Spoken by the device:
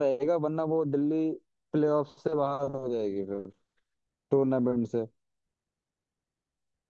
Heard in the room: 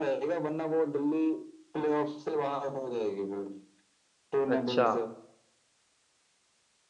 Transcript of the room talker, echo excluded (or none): अच्छा